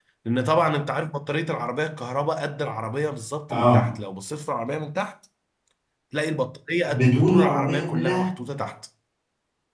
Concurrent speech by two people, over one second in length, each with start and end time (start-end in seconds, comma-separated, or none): 6.9-8.3